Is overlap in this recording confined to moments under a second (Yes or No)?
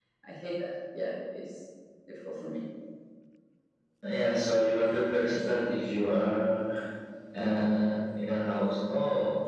Yes